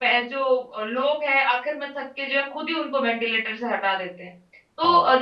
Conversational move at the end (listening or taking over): listening